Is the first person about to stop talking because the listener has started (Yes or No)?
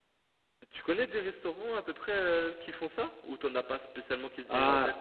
Yes